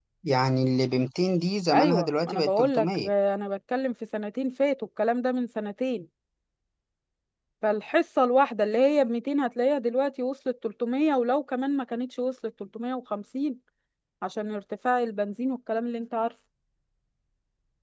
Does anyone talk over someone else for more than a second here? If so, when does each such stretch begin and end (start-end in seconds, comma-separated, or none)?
1.7-3.1